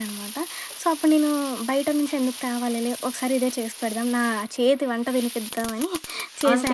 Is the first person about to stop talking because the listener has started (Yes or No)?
Yes